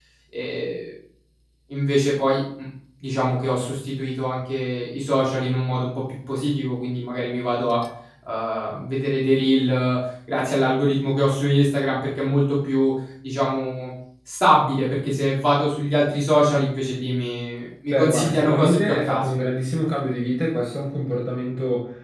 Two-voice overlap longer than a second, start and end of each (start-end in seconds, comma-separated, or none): 17.9-19.3